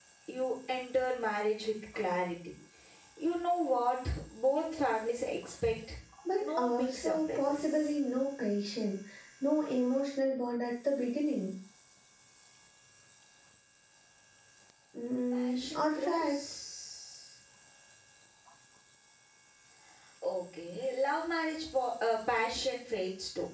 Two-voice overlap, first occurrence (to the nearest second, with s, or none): 6 s